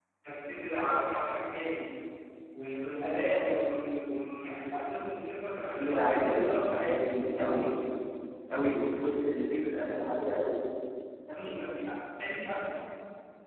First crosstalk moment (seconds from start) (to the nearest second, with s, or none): 6 s